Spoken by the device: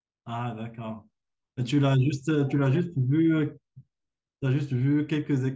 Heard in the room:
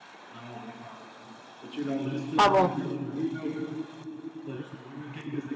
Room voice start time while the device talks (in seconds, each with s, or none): 2.4 s